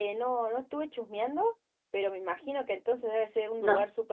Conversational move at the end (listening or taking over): listening